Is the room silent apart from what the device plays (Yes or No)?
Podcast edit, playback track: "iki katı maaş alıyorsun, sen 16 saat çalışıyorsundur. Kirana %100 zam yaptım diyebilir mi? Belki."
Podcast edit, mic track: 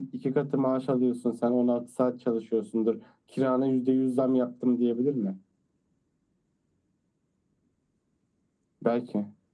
Yes